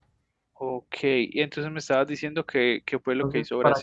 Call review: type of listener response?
taking over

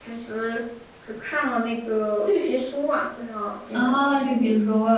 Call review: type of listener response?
taking over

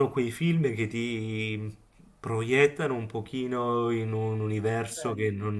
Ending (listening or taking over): listening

